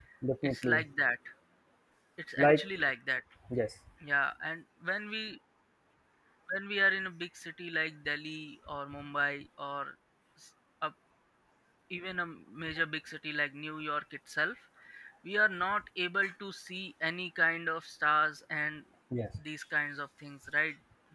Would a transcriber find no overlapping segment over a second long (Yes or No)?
Yes